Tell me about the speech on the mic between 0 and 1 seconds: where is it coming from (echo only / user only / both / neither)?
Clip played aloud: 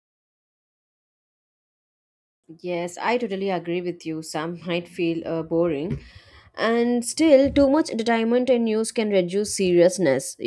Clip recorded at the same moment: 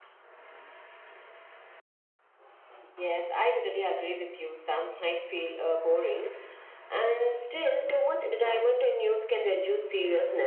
neither